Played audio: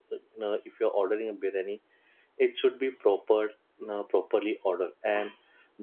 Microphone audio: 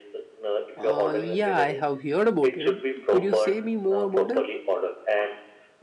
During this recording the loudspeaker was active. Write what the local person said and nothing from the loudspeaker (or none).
Uh, yeah, I have heard about it. Could you say me more about it?